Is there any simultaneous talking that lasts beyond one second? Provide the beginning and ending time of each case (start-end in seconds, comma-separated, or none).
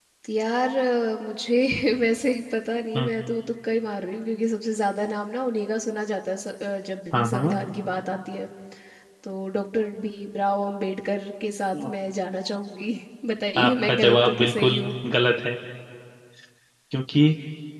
13.6-14.9